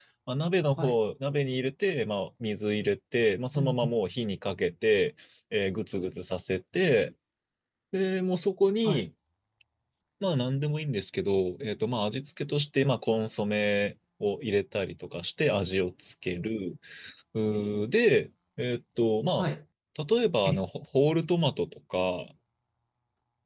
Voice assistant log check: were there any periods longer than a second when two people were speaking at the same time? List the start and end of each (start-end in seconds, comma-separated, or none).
none